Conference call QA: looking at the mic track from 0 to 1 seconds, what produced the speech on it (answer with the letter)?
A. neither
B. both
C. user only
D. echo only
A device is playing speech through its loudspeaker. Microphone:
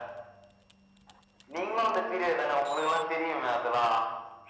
A